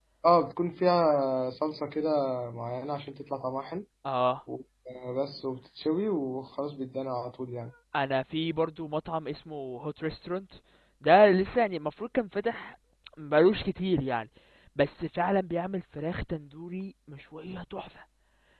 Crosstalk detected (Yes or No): No